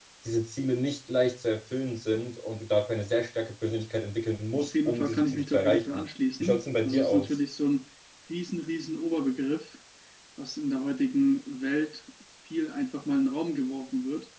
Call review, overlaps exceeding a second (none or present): present